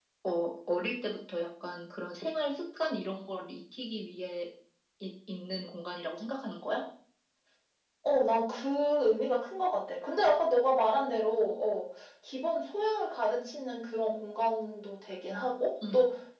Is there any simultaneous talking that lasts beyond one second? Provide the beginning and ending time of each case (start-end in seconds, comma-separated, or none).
none